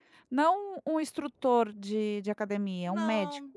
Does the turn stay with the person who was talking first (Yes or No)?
No